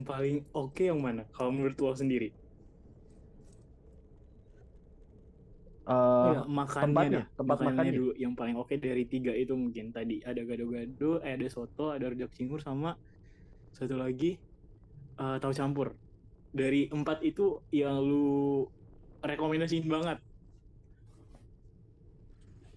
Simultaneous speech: Yes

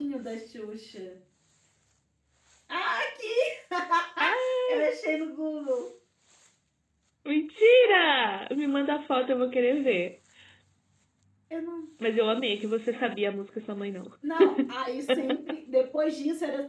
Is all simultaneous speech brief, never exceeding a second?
Yes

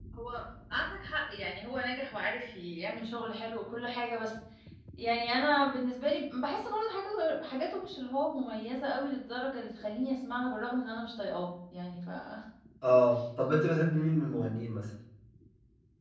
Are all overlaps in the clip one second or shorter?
Yes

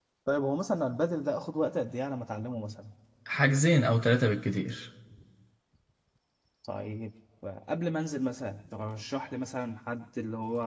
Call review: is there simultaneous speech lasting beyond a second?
No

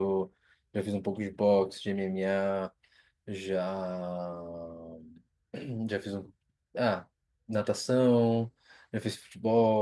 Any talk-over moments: No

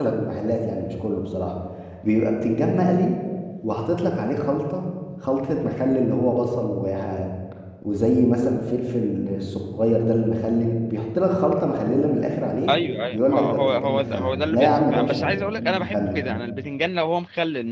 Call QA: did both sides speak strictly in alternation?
No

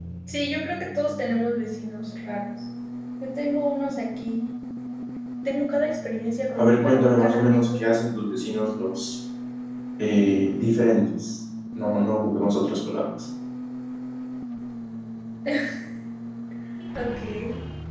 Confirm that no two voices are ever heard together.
No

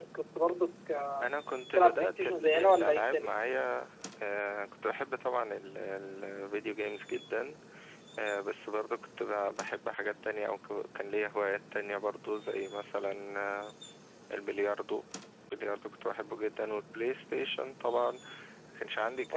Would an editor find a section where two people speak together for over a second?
Yes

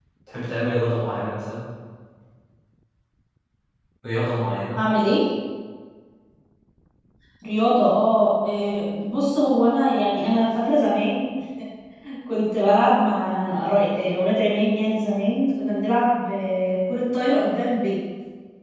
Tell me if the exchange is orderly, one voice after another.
Yes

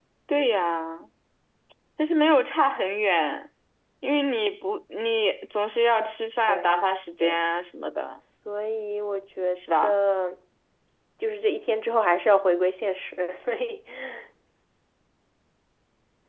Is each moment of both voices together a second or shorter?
Yes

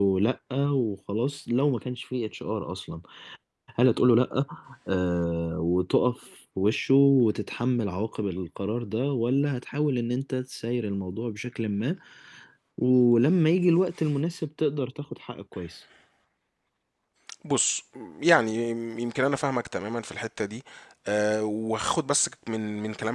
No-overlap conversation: Yes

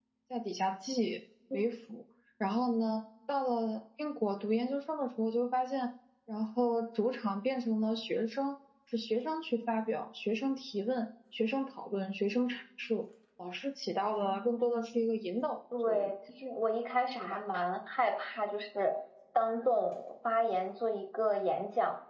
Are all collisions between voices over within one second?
Yes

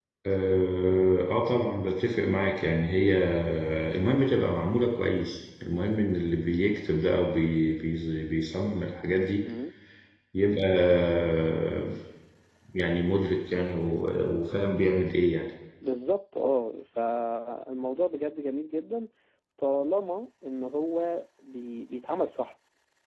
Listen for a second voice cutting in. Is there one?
No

